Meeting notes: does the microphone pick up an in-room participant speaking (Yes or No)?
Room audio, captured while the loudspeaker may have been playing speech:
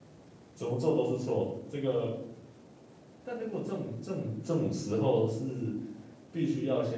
Yes